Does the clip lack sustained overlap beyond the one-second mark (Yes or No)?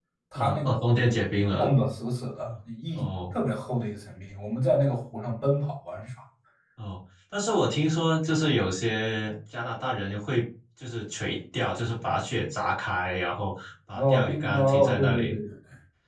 No